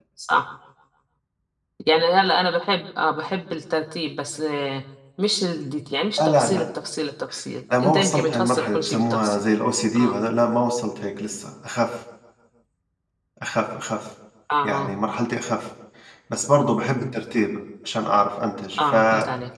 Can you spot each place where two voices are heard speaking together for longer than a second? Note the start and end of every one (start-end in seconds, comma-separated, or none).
7.8-9.4